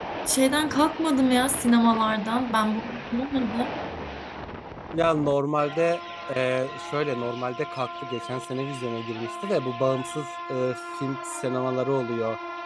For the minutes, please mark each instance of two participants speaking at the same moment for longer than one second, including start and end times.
none

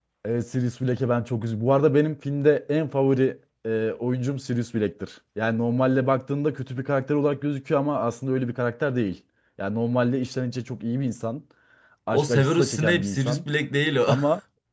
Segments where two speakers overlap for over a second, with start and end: 12.1-13.4

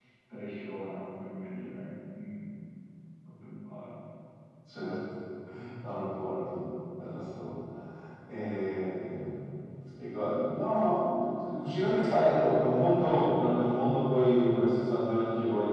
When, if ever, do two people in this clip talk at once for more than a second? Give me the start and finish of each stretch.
none

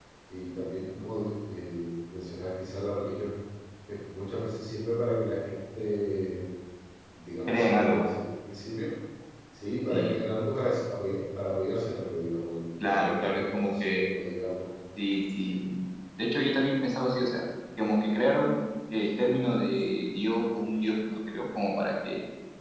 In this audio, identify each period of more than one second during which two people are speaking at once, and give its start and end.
12.8-14.0

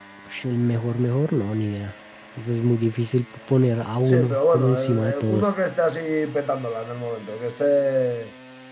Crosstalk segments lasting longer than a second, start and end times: 4.0-5.5

